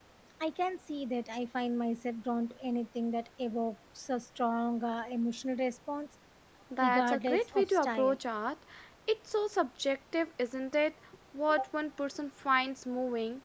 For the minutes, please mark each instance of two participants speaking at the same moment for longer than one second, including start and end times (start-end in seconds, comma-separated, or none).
6.8-8.2